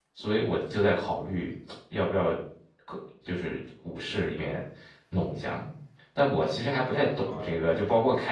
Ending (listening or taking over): listening